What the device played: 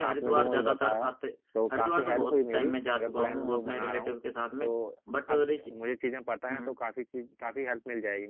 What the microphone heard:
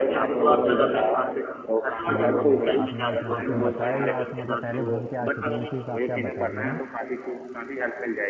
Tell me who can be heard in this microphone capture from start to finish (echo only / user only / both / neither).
both